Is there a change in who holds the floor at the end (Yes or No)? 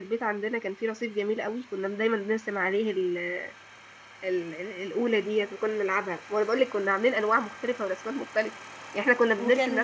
No